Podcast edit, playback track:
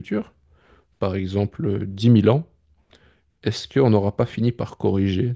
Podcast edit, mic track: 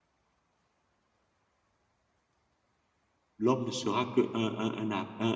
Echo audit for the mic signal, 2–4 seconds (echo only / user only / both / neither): user only